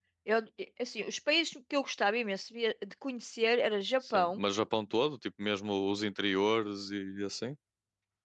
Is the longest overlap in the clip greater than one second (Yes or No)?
No